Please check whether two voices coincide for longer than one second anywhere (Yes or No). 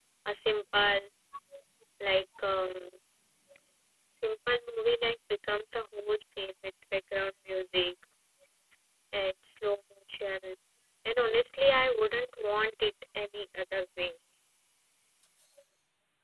No